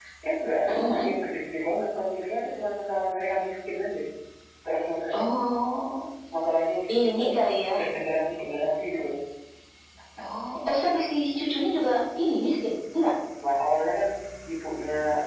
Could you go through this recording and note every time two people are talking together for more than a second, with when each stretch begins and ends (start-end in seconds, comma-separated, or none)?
none